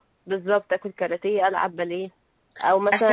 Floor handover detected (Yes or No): No